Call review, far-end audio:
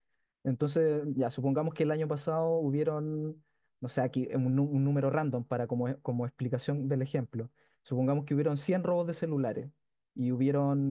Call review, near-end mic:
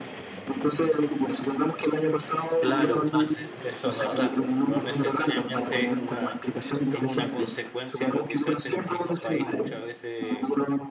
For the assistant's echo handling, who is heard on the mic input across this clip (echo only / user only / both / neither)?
both